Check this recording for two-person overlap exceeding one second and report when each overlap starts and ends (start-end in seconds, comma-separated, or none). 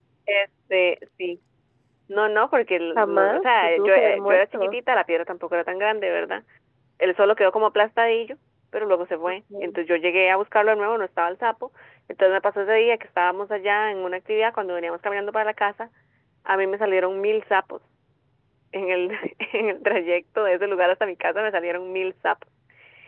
3.0-4.8